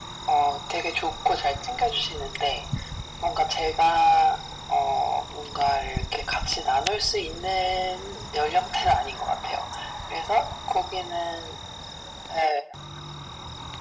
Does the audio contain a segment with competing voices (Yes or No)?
No